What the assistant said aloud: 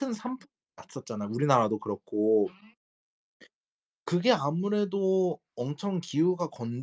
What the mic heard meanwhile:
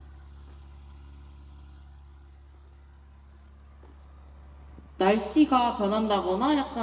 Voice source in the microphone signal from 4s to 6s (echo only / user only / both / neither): user only